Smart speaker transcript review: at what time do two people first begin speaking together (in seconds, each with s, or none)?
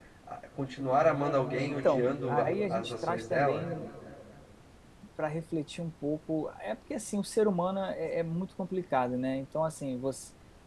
1.6 s